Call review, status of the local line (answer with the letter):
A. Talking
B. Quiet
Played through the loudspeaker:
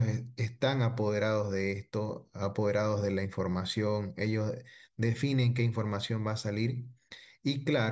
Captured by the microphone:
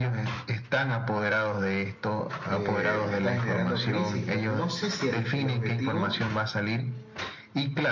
A